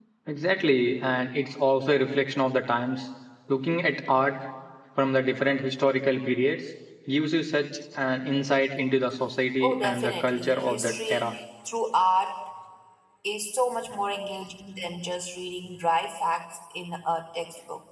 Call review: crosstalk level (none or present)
present